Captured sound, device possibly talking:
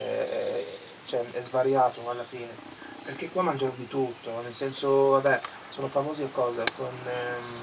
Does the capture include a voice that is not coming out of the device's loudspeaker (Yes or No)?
Yes